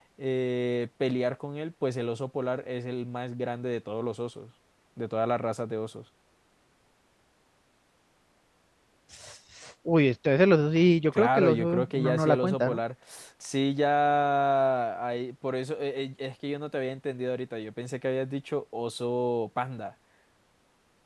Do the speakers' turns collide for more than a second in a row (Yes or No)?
Yes